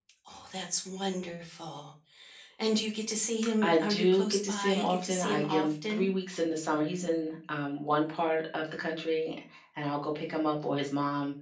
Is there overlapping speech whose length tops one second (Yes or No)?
Yes